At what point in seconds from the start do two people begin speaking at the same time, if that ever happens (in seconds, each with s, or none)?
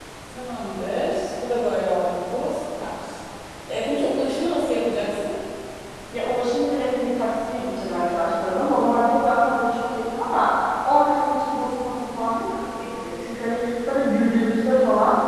none